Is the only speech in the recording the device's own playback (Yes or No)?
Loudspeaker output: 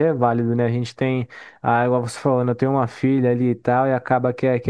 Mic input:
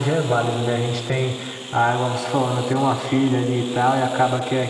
Yes